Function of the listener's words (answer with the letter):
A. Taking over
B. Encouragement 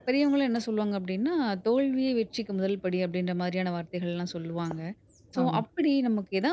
B